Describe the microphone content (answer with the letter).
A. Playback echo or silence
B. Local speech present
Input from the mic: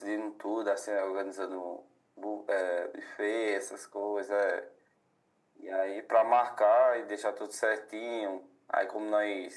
A